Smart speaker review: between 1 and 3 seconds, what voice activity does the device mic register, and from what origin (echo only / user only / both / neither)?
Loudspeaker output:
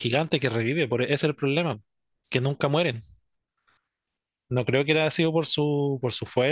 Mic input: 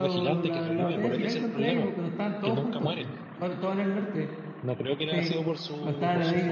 both